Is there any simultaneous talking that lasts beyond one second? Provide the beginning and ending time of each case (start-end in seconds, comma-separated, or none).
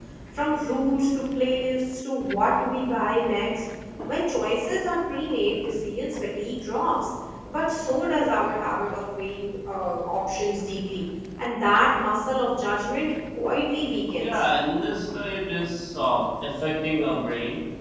none